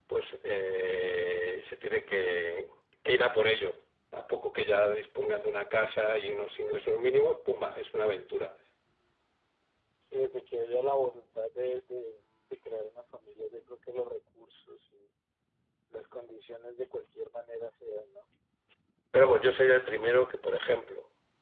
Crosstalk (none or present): none